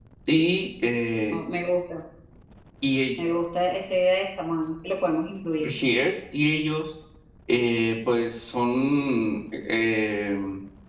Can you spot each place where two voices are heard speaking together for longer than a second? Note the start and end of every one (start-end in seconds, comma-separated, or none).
none